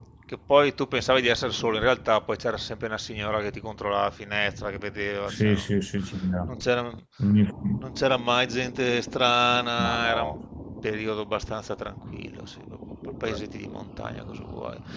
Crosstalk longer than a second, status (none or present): none